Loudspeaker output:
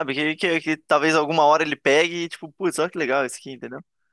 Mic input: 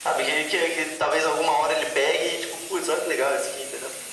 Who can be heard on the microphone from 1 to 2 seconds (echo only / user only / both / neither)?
echo only